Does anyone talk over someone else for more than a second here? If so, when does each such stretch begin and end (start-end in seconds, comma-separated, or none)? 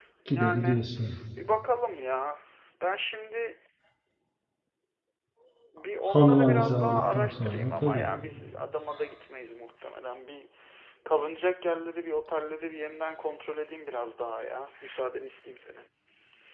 6.1-8.0